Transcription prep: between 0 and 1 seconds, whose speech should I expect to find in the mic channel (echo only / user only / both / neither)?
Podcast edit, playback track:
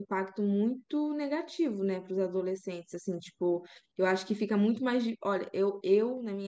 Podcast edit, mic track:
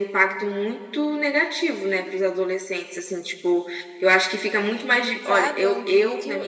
echo only